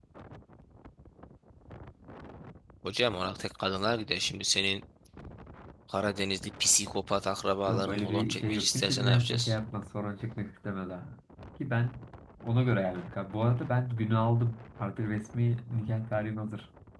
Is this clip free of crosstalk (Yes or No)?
No